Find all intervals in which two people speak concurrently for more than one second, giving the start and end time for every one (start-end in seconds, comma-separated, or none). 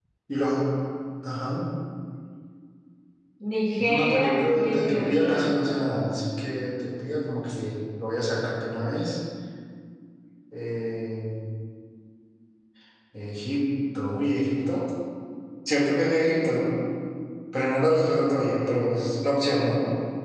3.9-5.4